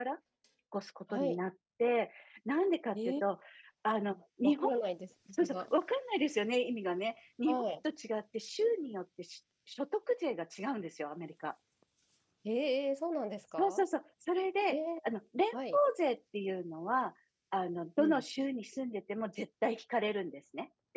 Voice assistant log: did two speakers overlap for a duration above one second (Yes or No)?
No